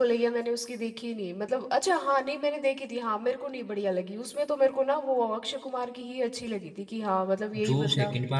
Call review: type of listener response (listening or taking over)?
taking over